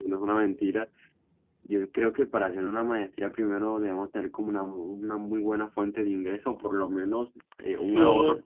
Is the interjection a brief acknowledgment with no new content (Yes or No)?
Yes